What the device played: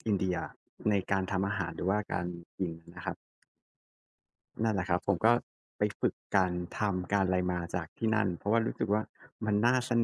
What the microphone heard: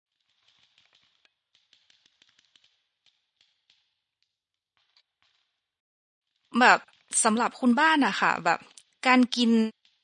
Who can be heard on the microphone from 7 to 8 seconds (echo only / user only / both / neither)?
user only